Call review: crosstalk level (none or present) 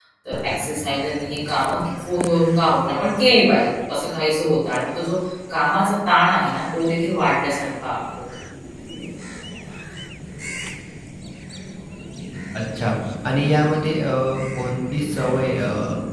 none